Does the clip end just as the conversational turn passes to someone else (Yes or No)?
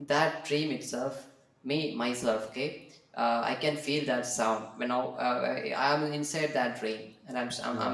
No